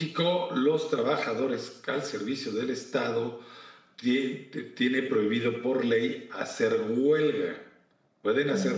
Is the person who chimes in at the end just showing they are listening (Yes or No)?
Yes